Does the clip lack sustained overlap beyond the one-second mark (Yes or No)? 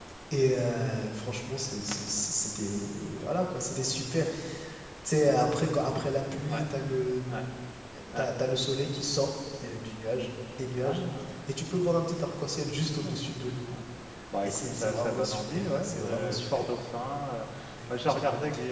No